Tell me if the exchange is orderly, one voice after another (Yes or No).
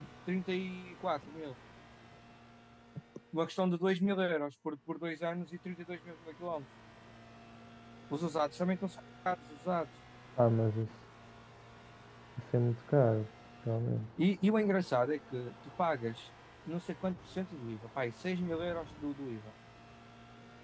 Yes